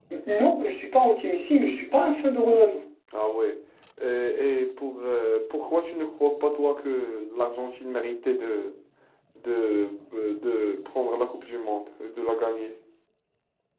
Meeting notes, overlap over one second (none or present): none